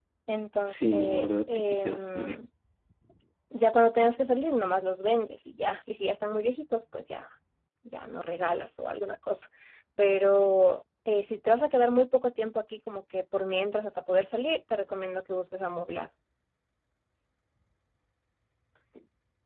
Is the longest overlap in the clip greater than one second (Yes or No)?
Yes